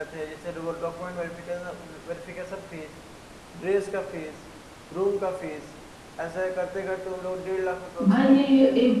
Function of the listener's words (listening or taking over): taking over